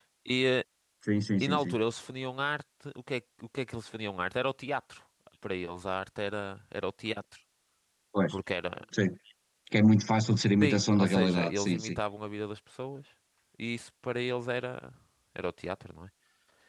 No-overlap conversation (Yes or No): No